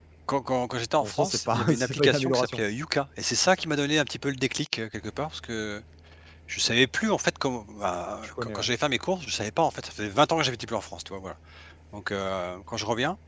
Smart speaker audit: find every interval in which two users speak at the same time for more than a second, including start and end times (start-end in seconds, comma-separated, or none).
1.0-2.6